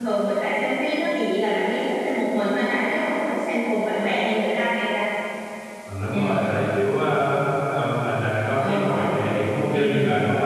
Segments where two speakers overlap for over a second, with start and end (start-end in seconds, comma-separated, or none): none